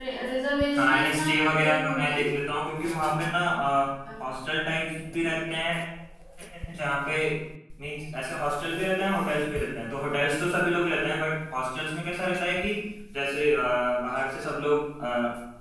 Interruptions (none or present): present